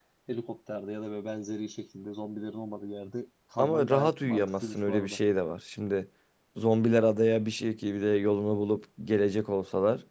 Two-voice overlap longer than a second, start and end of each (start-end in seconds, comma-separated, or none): 3.6-5.2